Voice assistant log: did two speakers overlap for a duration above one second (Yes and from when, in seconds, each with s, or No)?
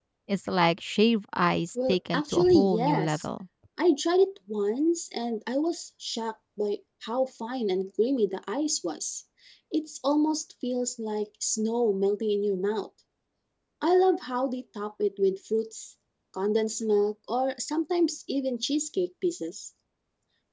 Yes, from 1.8 s